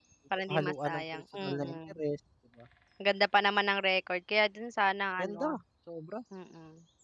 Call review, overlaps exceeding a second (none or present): present